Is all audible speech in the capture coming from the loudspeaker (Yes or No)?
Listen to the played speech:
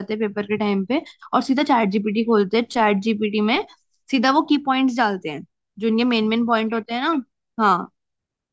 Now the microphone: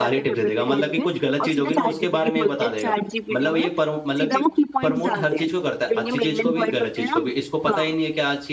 No